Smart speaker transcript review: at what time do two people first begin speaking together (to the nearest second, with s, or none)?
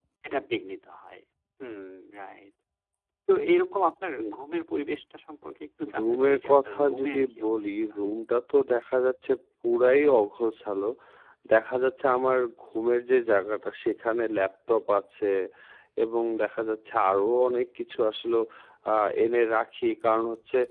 6 s